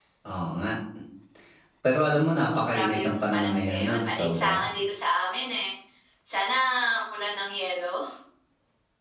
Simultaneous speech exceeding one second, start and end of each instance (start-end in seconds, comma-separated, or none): 2.5-4.6